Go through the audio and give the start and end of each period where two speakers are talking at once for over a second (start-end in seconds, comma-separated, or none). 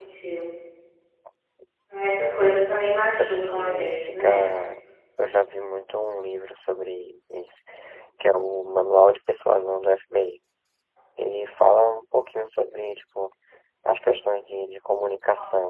3.2-4.5